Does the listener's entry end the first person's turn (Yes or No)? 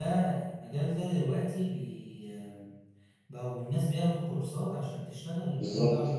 No